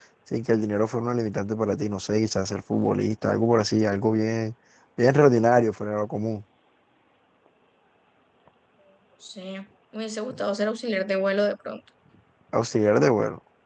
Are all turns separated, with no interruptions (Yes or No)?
Yes